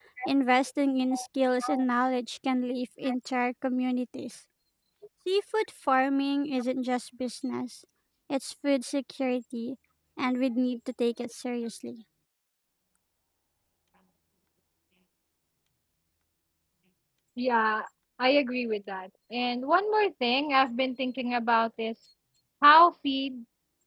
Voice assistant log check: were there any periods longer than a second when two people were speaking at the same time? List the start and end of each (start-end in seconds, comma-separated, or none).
none